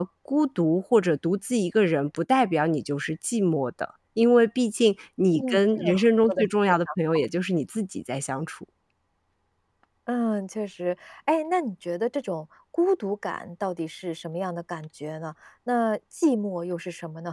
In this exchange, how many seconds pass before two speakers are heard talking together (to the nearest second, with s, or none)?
5 s